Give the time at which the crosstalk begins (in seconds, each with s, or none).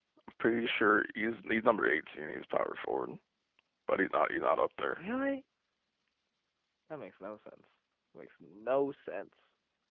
none